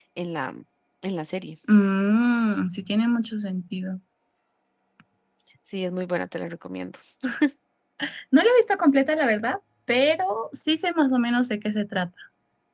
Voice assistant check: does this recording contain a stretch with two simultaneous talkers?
No

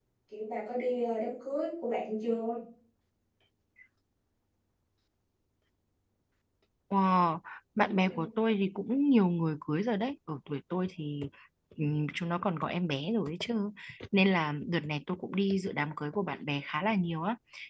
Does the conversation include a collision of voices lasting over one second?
No

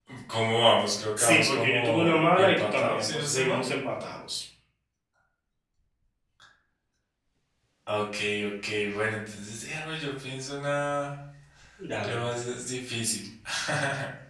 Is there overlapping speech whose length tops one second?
Yes, from 1.2 s

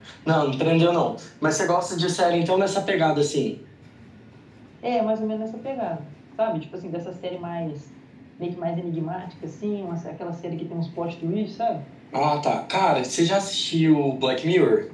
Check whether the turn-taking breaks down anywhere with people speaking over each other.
No

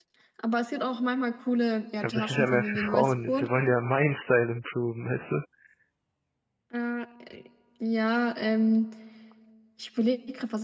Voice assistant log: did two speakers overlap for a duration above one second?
Yes, from 2.0 s

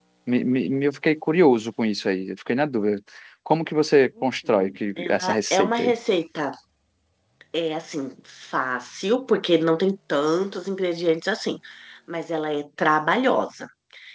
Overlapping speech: Yes, from 4.2 s

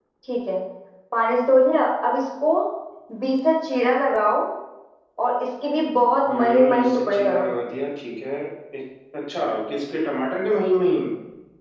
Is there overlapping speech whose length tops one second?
Yes, from 6.3 s

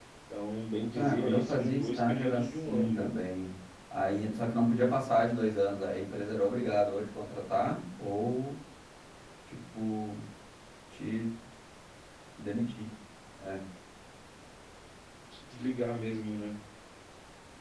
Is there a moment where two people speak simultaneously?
Yes, from 0.9 s

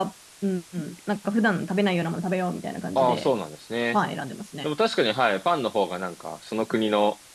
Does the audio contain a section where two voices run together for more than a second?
No

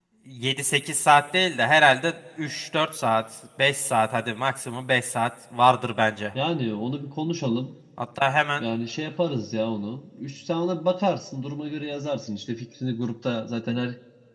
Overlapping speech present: No

